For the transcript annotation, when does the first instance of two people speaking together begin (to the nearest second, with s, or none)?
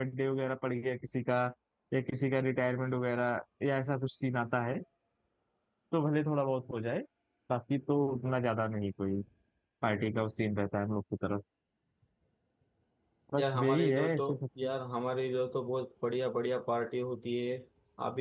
13 s